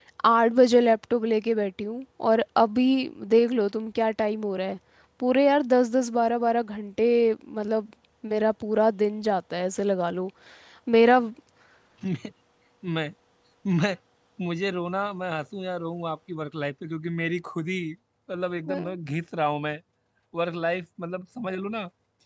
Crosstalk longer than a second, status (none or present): none